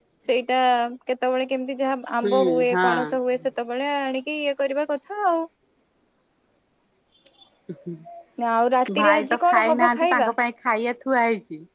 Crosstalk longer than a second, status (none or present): present